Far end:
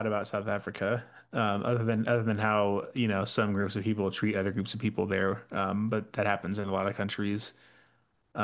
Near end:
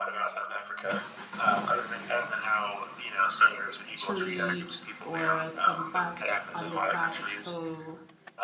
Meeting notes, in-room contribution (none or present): present